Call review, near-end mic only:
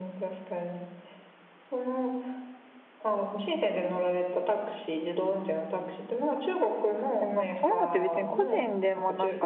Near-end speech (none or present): present